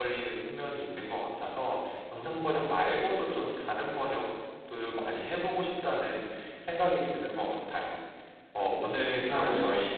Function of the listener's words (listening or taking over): listening